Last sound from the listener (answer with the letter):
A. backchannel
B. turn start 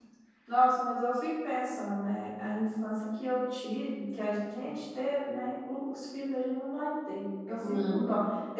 A